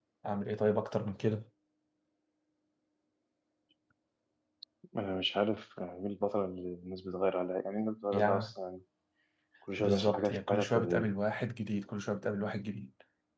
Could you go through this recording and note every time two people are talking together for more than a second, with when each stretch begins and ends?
9.8-11.1

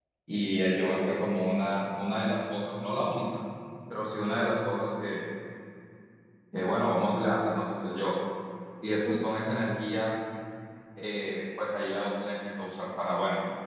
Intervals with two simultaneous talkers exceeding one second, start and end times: none

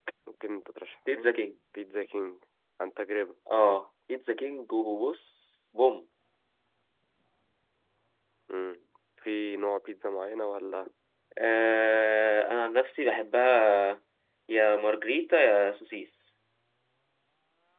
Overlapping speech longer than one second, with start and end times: none

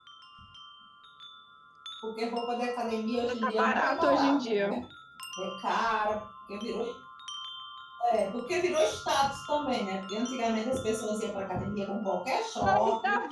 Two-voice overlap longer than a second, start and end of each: 3.4-4.8

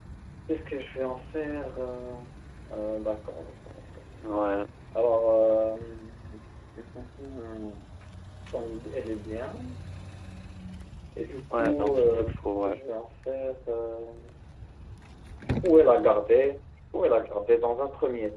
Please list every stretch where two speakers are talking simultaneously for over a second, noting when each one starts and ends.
11.5-12.8

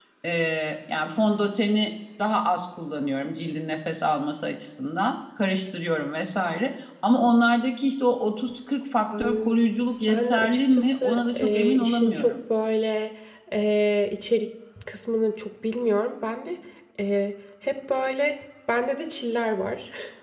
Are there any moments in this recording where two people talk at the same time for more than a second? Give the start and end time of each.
10.1-12.4

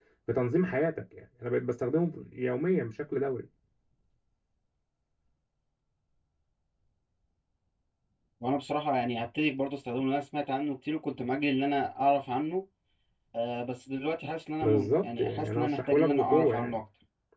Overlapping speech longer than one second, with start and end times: 14.6-16.8

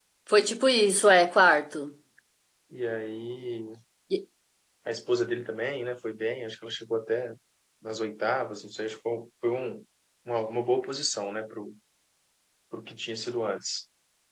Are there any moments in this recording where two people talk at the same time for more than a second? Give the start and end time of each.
none

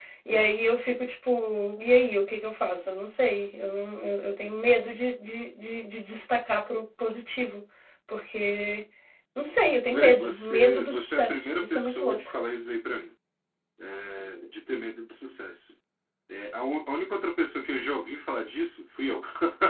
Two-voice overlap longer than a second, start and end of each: 9.9-12.2

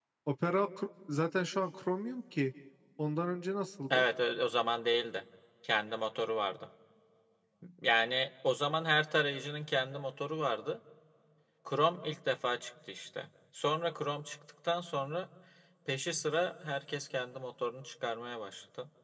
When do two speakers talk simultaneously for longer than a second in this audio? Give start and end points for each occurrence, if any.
none

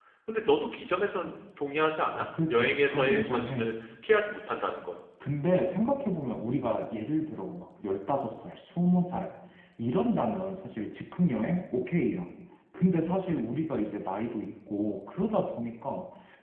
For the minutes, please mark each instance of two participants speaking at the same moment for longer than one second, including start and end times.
2.1-3.7

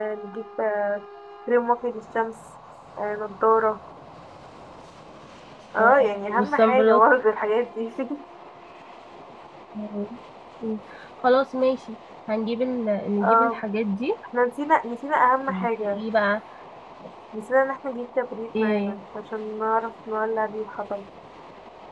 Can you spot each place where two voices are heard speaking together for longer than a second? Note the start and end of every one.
5.8-7.0

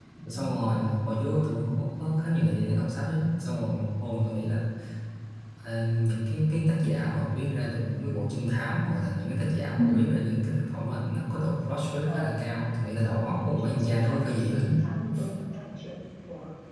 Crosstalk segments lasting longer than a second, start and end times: 13.2-14.9

